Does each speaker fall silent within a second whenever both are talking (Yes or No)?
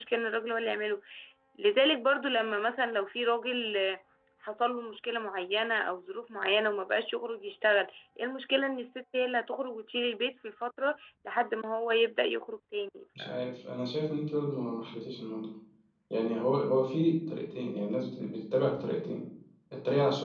Yes